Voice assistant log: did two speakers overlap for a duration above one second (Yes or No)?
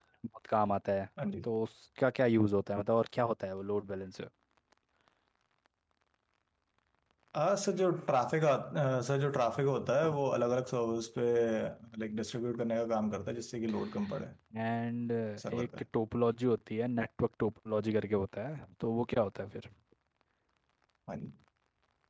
No